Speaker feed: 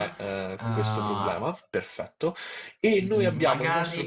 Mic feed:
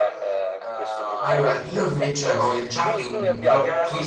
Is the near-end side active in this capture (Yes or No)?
Yes